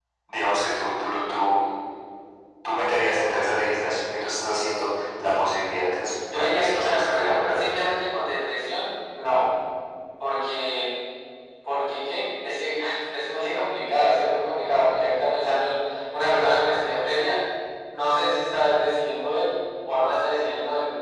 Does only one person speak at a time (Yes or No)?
No